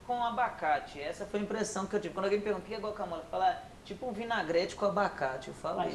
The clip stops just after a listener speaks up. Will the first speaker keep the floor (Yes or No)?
No